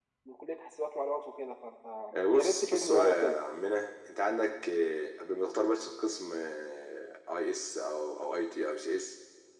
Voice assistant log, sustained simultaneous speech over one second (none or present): present